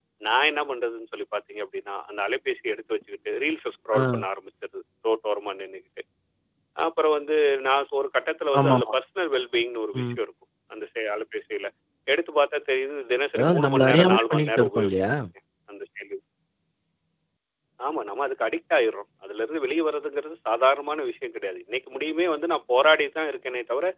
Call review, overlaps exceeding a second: present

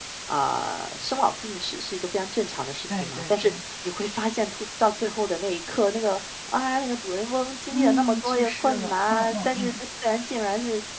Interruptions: present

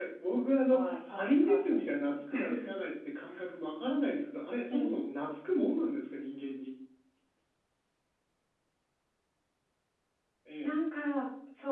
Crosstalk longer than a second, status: present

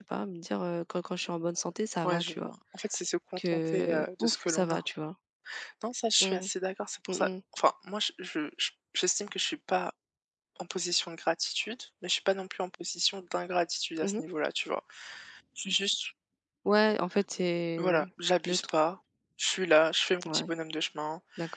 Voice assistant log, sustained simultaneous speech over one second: present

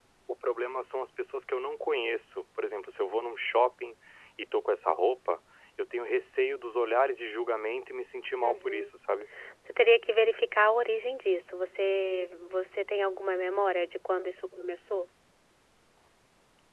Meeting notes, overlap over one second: none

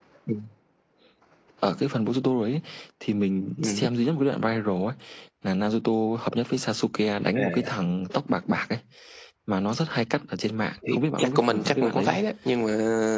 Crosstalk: present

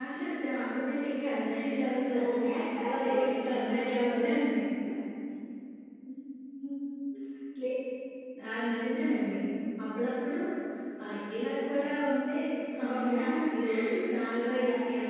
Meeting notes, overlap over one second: present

